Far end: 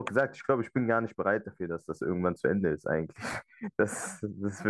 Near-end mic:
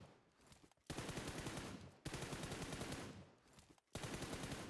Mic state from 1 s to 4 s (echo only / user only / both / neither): neither